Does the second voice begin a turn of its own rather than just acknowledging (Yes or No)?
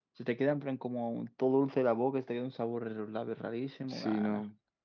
Yes